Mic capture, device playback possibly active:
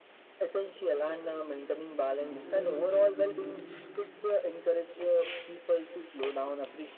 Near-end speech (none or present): present